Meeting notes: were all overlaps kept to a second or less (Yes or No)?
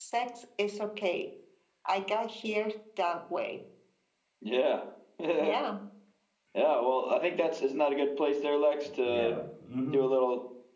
Yes